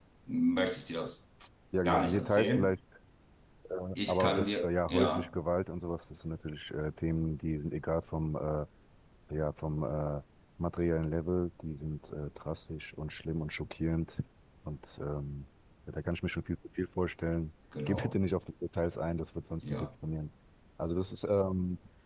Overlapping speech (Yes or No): Yes